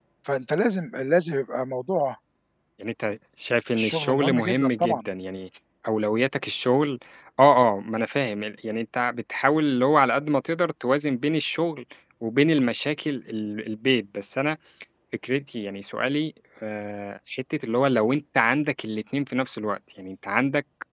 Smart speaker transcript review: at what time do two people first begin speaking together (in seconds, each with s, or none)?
3.8 s